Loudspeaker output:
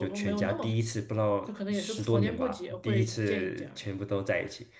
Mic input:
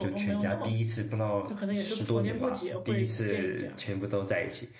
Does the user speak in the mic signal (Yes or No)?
No